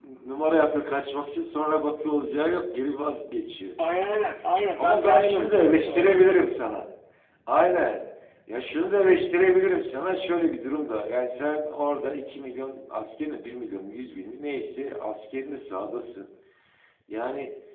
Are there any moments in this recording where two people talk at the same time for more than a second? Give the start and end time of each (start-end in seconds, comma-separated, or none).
4.8-6.2